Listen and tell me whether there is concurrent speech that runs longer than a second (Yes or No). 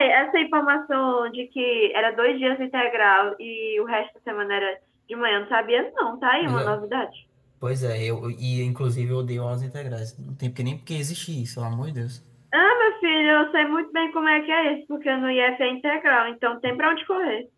No